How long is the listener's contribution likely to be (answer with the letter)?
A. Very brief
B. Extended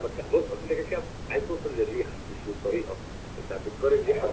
B